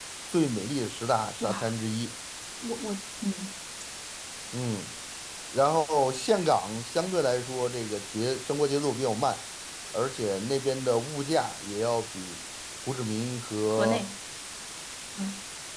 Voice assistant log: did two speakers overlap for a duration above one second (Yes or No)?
No